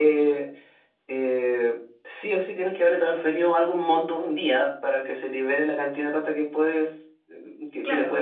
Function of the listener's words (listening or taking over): taking over